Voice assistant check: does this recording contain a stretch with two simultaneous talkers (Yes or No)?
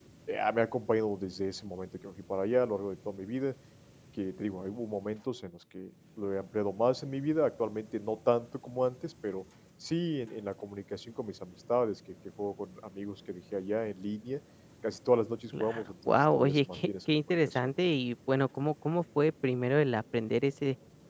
Yes